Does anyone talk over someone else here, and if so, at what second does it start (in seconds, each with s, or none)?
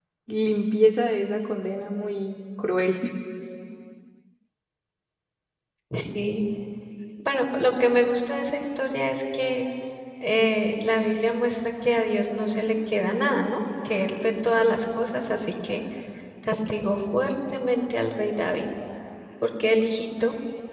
none